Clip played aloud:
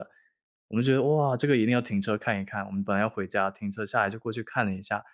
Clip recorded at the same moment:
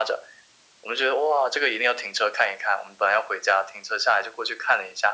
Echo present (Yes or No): Yes